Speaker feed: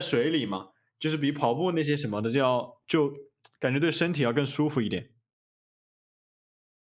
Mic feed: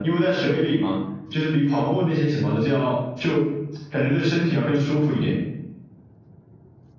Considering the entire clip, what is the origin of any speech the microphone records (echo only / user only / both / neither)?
echo only